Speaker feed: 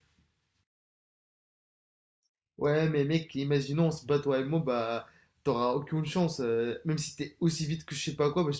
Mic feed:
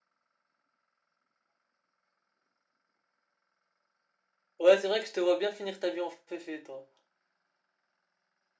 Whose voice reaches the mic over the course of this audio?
user only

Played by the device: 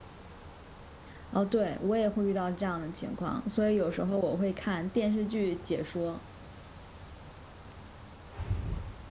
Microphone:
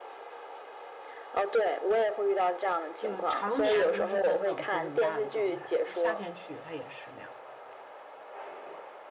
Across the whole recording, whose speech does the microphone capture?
both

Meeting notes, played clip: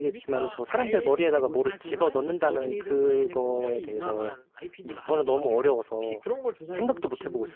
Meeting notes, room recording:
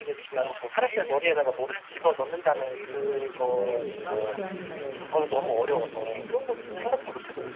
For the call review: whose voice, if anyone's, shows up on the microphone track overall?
both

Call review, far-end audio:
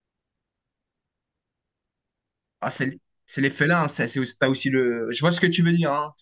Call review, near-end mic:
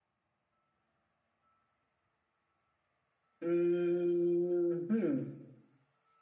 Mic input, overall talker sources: user only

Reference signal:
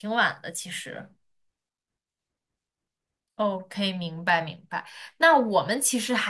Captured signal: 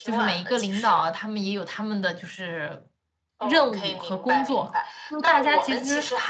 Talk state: both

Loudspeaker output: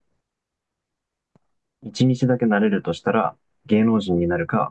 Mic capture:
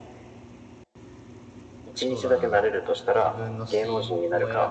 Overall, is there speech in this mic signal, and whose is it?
both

